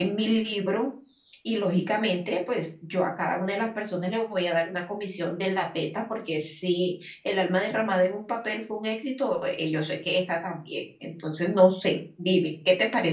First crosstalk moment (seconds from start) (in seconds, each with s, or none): none